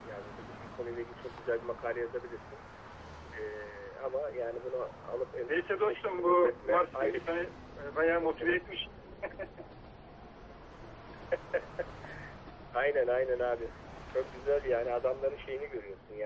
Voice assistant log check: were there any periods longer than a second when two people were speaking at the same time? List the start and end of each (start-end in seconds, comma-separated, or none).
5.5-7.4